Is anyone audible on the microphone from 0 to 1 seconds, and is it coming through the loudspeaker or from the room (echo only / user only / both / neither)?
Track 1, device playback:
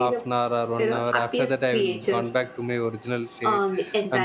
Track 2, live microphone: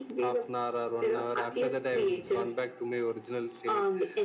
echo only